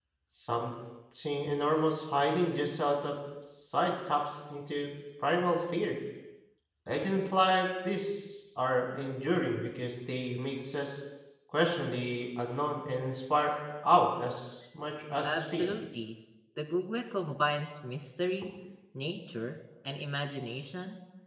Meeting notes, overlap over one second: none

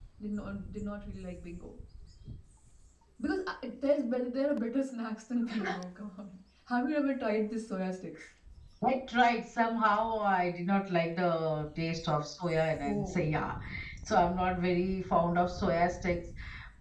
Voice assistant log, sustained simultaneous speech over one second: none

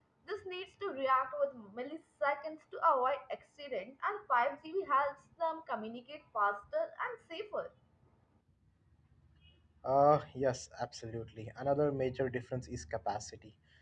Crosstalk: none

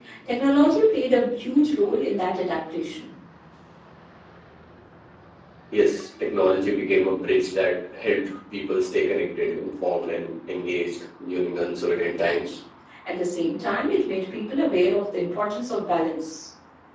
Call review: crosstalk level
none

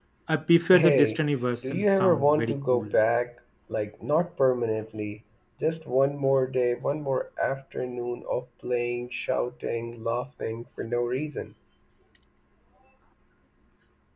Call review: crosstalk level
present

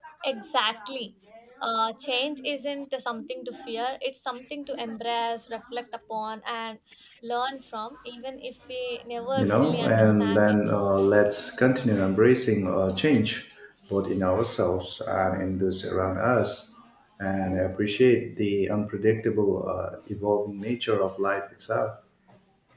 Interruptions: present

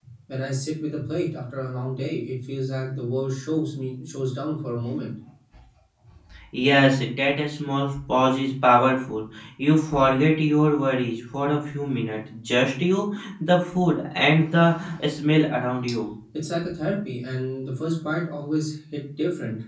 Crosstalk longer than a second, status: none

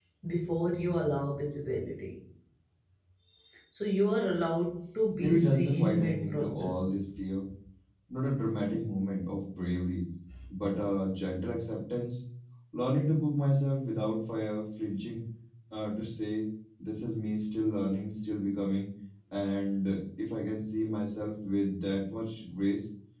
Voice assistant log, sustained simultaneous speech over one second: present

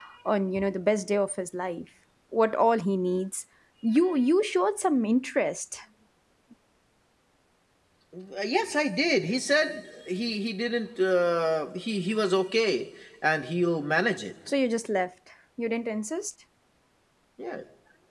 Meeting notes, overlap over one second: none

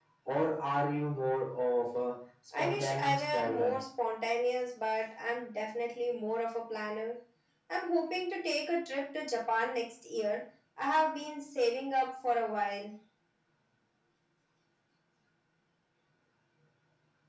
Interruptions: present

